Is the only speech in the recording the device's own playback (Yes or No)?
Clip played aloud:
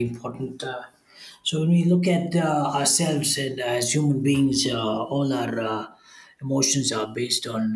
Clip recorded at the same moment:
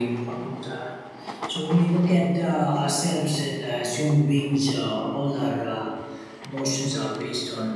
Yes